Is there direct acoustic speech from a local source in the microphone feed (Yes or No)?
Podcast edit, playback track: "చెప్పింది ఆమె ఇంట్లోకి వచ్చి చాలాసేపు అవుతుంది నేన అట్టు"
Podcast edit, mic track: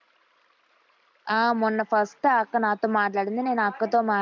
Yes